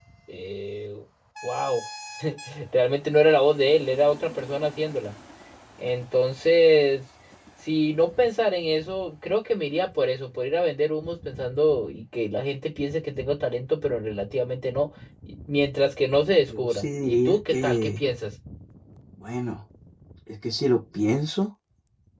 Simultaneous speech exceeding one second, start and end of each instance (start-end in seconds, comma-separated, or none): 16.5-17.9